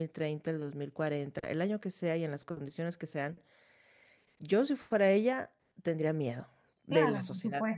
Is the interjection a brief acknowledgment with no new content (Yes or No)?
No